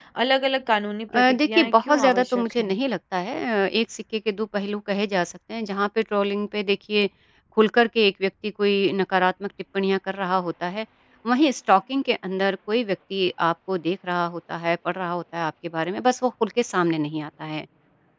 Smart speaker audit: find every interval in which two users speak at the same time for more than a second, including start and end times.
1.2-2.7

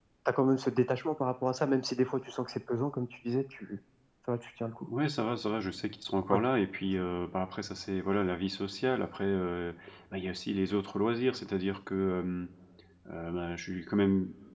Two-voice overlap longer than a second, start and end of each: none

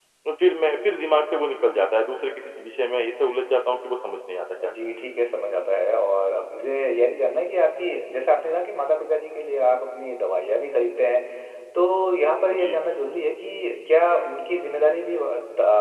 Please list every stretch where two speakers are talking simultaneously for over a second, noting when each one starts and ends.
none

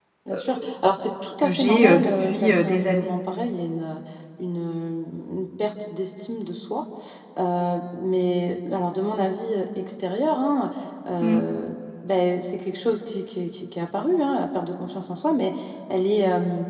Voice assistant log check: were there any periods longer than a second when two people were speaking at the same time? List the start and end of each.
1.4-3.1

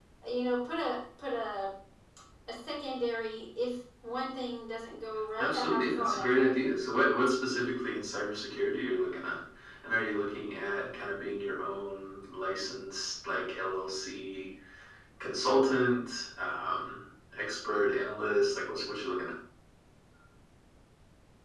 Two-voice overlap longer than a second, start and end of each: 5.4-6.6

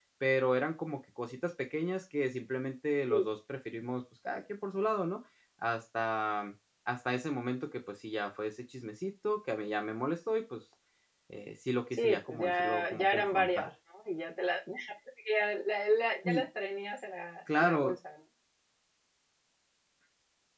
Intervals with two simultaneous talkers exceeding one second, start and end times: 11.9-13.7

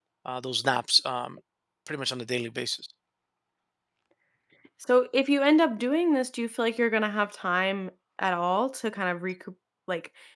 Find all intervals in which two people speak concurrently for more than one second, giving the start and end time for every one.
none

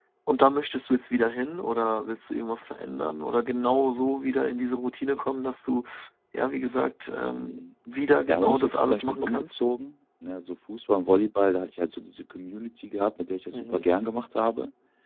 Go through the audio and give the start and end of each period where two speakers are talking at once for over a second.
8.3-9.5

